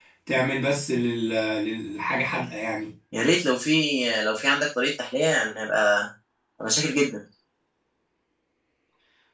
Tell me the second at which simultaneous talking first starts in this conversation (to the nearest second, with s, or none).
none